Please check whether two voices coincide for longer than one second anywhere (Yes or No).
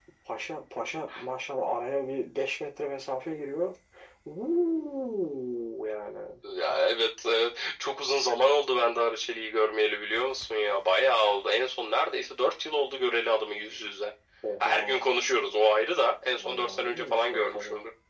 Yes